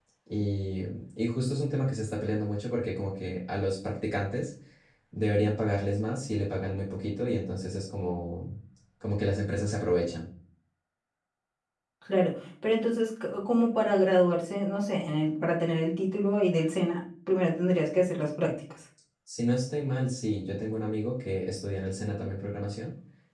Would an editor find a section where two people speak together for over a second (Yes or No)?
No